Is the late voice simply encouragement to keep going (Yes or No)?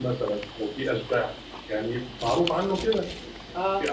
Yes